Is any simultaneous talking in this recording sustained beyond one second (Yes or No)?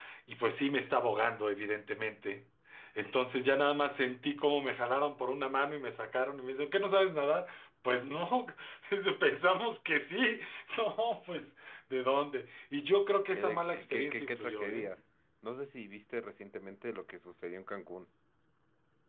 Yes